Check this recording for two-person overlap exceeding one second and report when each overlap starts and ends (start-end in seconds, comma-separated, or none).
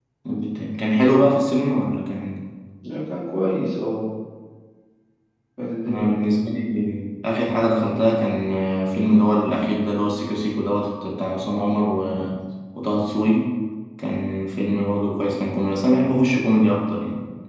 none